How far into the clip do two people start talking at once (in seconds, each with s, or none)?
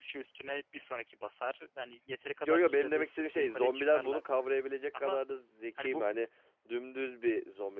2.4 s